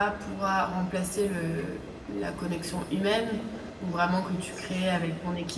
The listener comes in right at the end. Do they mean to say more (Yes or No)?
No